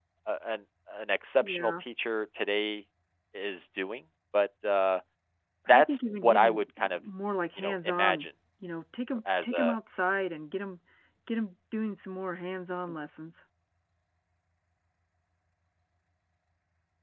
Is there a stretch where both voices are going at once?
Yes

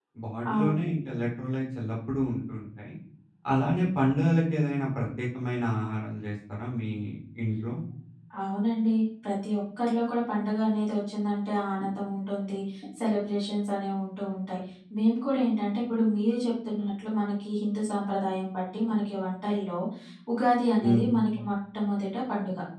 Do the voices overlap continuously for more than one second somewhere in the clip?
No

